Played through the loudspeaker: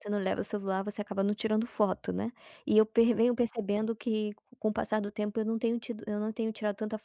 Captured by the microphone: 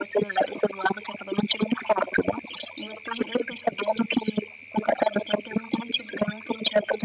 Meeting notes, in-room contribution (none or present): none